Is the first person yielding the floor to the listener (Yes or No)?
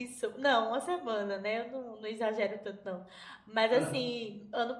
No